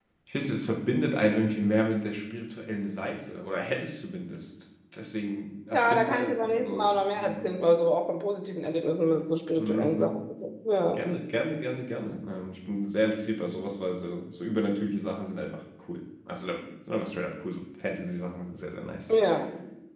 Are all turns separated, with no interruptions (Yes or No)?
No